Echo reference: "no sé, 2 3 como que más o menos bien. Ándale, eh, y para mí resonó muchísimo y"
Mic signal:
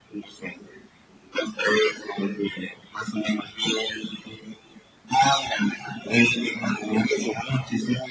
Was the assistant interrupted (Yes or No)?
No